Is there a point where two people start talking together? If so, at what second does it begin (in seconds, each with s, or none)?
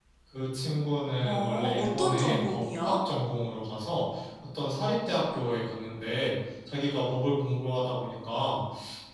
1.2 s